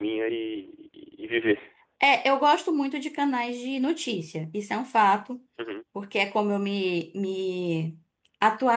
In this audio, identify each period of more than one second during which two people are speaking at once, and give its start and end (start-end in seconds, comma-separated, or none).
none